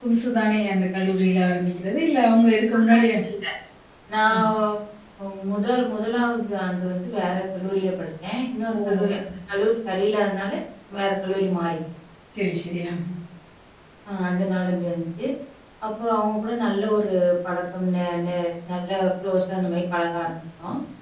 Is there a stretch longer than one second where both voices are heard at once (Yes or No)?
No